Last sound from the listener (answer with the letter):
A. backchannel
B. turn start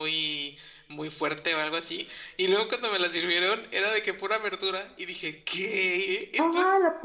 B